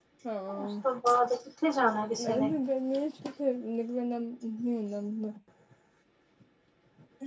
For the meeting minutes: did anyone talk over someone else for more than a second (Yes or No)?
No